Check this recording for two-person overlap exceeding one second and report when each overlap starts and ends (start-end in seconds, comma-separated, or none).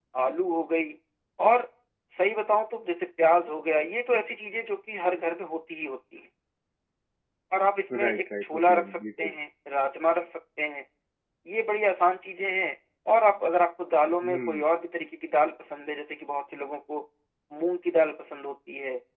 8.0-9.3